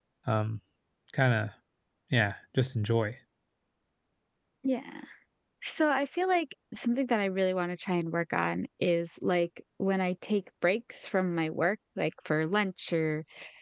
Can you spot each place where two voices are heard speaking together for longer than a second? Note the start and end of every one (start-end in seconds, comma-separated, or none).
none